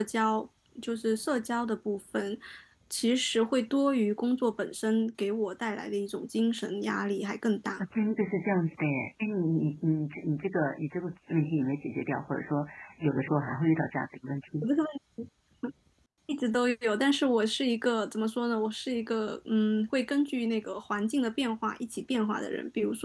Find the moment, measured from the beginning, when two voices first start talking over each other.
none

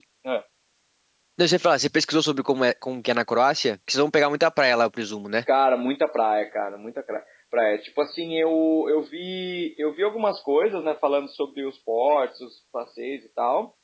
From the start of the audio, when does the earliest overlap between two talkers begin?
none

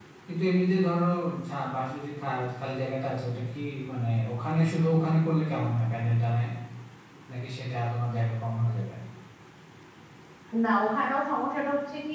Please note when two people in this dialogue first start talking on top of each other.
none

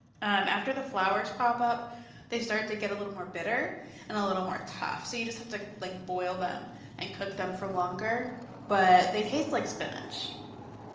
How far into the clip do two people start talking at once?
none

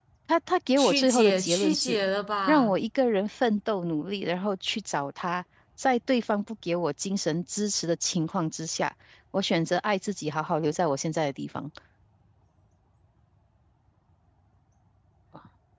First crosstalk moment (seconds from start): 0.8 s

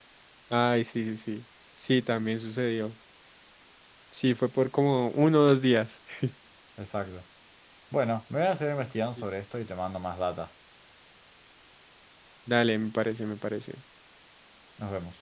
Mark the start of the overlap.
none

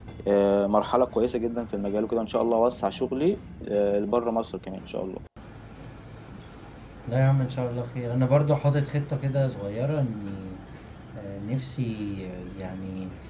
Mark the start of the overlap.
none

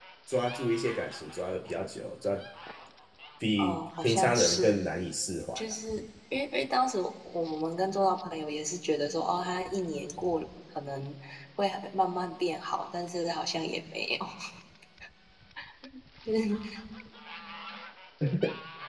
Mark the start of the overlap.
3.6 s

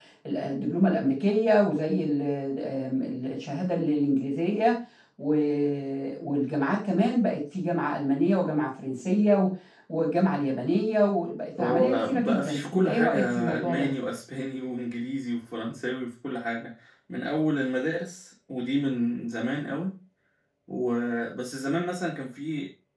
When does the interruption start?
11.6 s

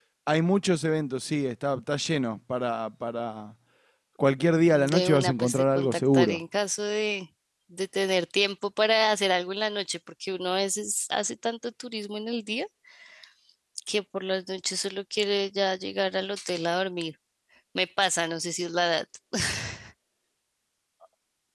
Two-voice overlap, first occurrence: 4.7 s

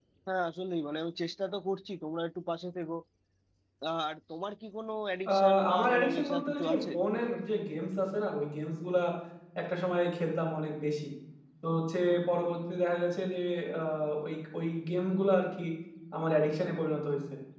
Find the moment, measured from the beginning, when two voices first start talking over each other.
5.3 s

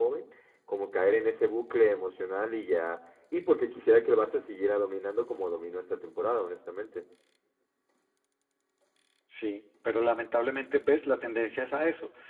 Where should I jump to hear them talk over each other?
none

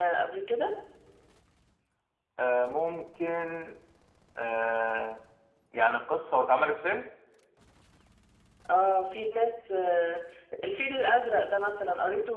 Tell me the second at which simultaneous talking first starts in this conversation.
none

